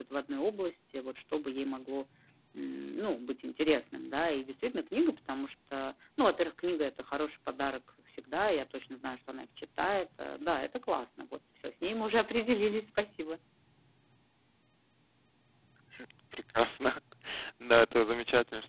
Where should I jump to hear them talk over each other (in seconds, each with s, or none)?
none